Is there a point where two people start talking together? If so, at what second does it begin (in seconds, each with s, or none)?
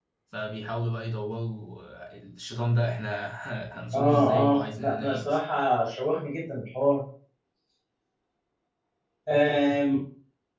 3.9 s